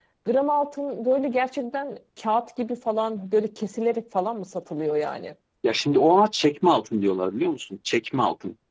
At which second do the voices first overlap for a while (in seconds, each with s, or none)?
none